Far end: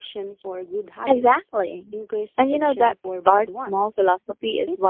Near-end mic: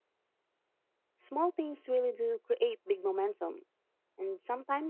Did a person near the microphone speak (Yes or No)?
Yes